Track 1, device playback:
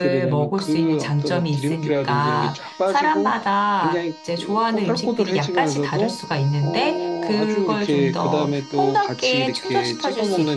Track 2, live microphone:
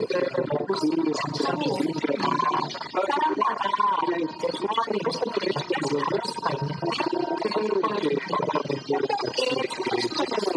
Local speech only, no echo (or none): 창어로, 음.